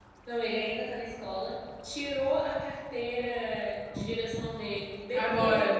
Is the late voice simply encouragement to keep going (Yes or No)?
Yes